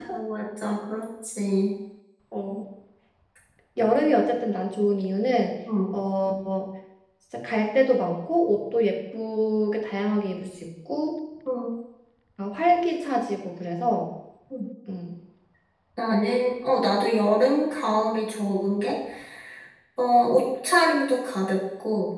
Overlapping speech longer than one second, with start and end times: none

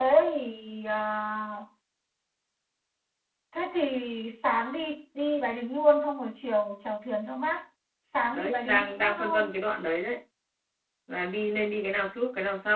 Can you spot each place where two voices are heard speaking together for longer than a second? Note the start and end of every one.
8.3-9.5

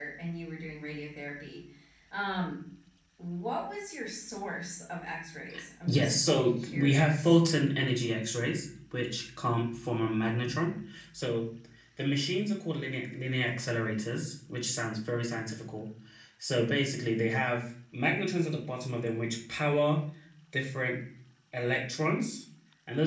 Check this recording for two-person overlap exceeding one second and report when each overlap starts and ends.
5.9-7.4

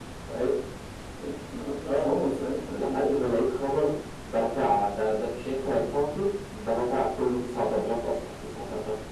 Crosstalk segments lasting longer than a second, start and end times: none

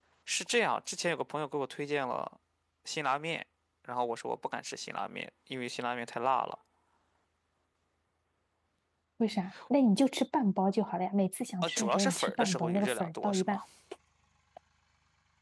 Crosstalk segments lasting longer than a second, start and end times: 11.6-13.6

